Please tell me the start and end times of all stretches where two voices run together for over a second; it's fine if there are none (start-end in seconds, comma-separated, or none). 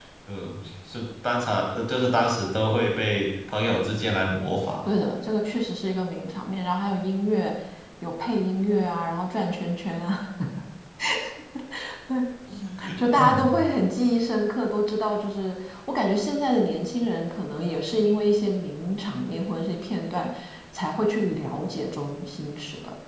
none